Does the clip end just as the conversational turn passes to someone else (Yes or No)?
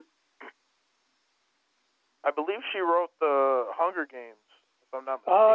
Yes